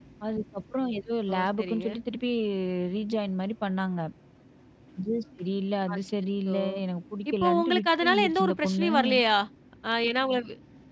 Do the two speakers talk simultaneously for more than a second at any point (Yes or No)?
Yes